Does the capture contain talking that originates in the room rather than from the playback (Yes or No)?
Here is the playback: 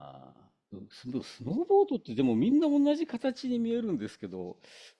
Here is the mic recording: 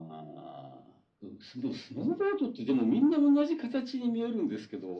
No